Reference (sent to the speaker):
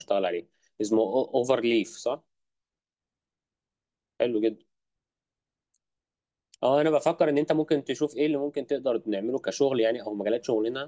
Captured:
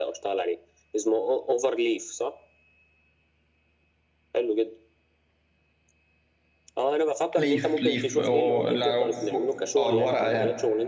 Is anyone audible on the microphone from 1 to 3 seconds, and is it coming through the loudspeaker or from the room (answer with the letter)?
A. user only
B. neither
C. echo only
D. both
C